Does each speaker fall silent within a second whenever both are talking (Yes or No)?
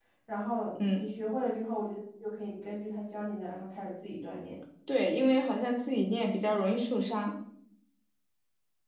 Yes